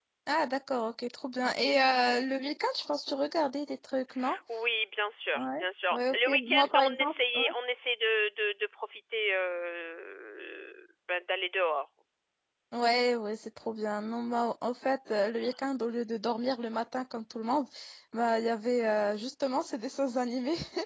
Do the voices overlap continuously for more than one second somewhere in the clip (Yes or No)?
Yes